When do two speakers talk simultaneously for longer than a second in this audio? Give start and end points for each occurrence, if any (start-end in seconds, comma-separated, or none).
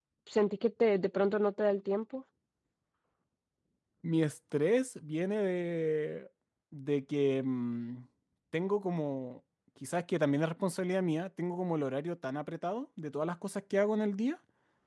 none